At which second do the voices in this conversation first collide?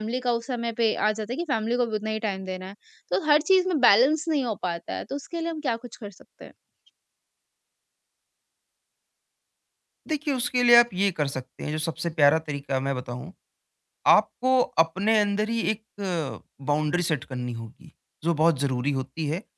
none

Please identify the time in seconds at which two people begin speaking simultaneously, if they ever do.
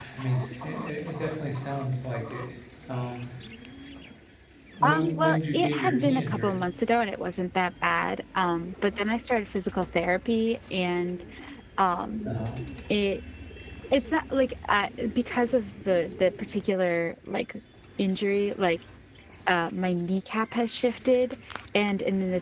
4.8 s

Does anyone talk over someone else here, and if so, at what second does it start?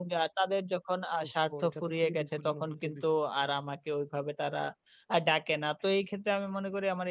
1.2 s

